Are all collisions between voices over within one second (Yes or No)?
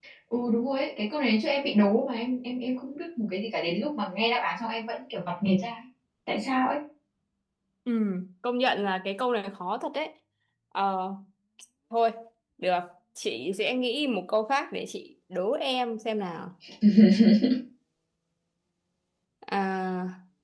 Yes